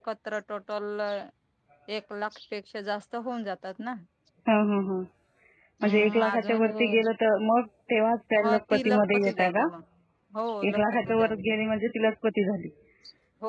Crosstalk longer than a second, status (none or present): present